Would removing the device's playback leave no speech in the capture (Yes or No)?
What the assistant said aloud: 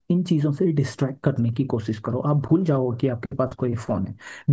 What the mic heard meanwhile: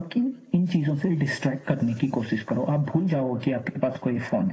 Yes